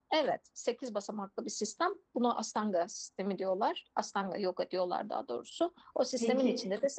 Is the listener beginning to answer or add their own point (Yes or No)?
No